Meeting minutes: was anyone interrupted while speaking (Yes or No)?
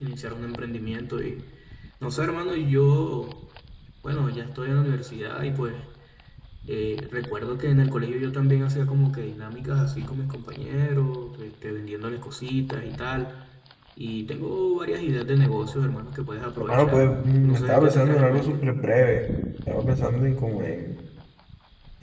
Yes